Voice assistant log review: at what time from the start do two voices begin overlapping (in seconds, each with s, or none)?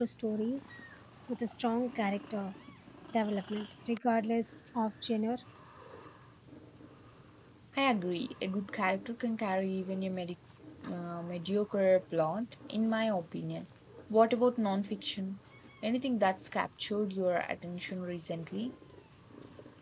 none